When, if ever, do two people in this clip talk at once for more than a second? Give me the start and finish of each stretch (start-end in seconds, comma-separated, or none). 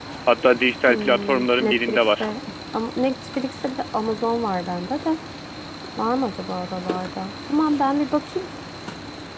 0.9-2.3